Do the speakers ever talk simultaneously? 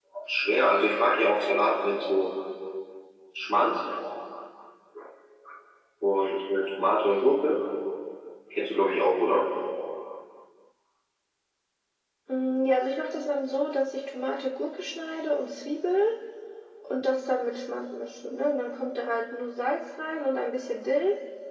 No

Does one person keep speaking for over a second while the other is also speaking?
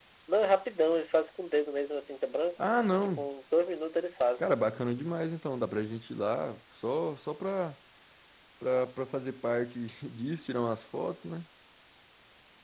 No

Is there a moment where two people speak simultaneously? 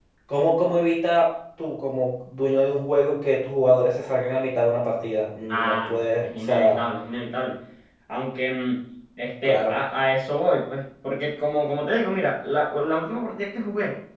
Yes, from 5.5 s

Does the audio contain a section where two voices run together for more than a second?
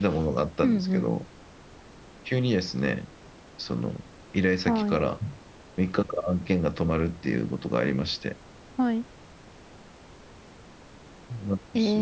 No

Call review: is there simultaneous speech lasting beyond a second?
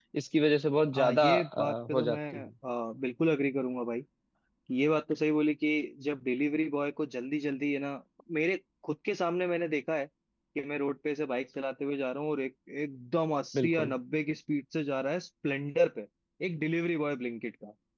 Yes, from 1.0 s

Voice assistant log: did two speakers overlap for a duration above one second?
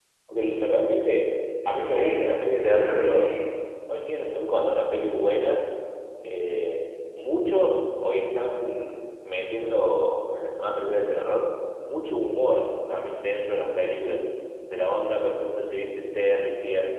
Yes, from 1.8 s

